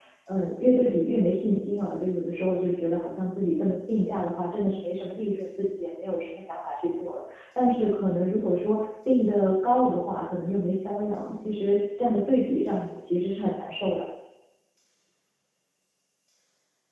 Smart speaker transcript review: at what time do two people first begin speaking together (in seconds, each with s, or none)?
none